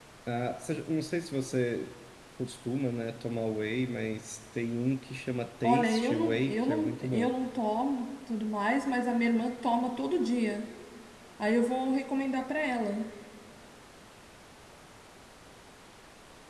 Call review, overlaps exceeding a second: present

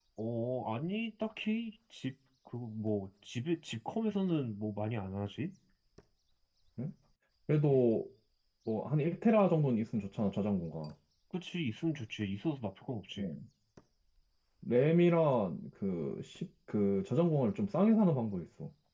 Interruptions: none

